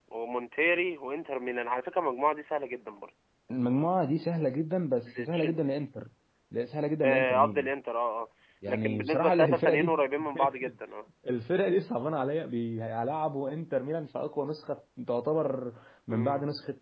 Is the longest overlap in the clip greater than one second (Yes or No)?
Yes